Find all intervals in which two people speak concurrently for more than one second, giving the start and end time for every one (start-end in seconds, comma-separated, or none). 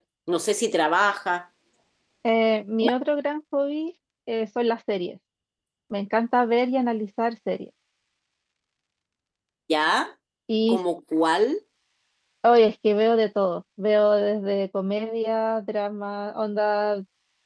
none